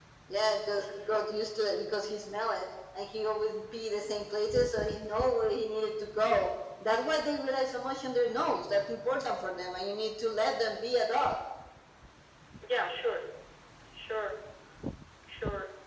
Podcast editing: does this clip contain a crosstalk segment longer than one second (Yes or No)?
No